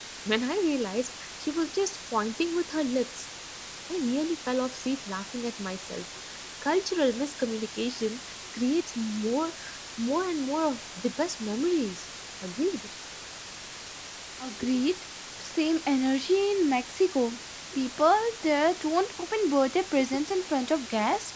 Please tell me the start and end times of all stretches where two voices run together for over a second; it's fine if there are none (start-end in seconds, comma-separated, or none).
none